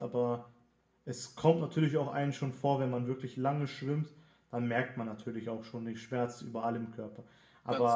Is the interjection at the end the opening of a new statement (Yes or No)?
No